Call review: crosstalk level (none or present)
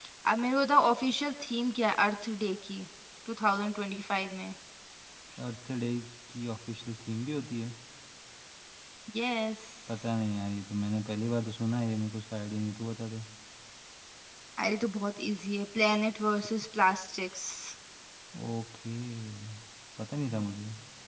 none